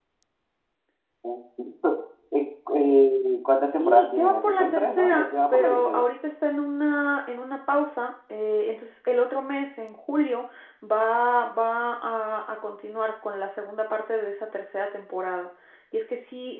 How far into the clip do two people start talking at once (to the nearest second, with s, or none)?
4 s